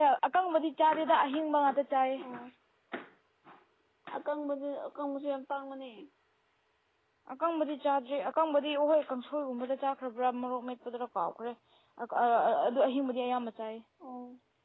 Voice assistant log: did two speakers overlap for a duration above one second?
No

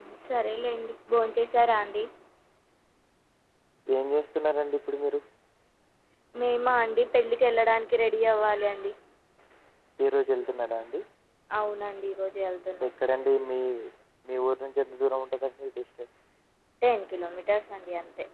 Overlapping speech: No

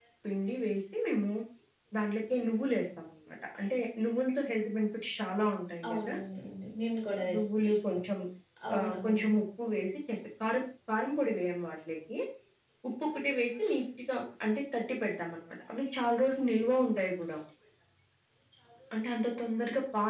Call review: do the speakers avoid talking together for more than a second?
Yes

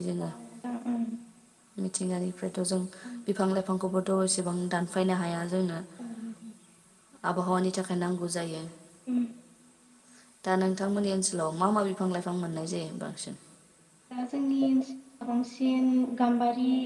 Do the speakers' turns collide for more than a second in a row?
No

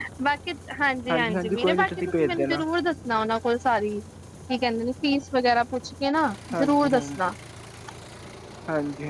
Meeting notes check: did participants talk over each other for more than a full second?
Yes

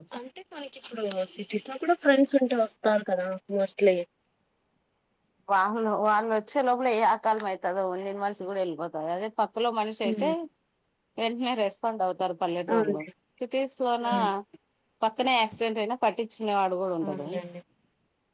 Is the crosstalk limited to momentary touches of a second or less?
Yes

